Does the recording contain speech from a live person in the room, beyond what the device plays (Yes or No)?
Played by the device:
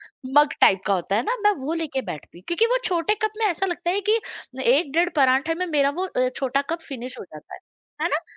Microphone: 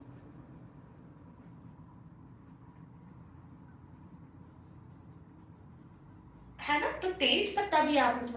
Yes